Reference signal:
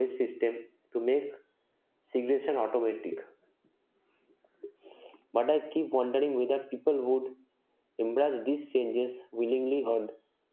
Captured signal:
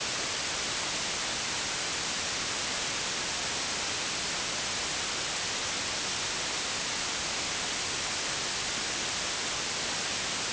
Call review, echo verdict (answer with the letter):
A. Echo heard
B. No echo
B